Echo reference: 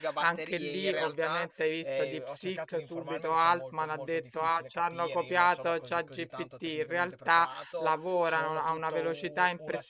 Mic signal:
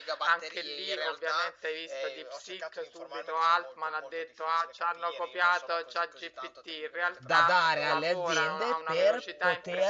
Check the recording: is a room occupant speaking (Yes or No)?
Yes